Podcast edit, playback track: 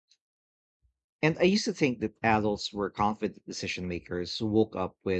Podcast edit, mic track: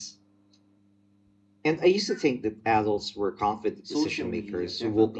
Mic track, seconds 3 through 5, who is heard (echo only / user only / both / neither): both